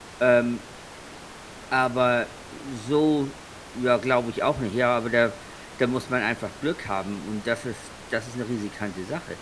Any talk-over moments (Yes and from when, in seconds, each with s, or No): No